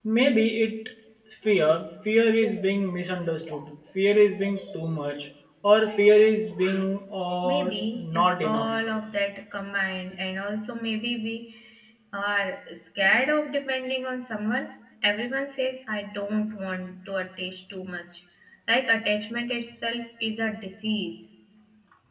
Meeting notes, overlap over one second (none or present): present